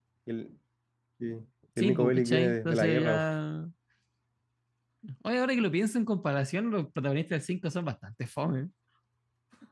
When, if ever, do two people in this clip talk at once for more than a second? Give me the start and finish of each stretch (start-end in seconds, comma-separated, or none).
1.8-3.3